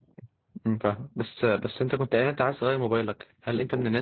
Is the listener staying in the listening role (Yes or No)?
Yes